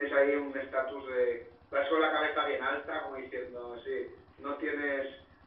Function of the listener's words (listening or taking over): listening